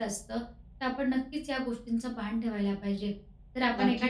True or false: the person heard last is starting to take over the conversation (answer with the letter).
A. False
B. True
B